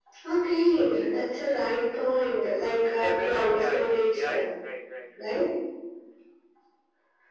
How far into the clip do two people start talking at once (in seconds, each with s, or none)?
3.0 s